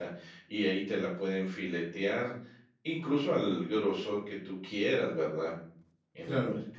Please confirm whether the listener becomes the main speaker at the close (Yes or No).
No